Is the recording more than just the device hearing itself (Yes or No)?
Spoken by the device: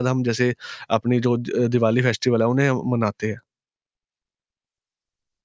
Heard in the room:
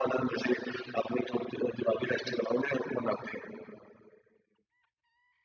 No